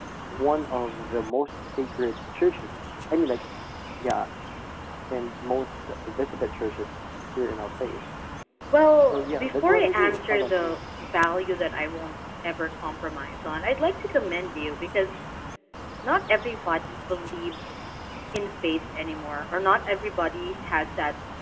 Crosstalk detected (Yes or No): Yes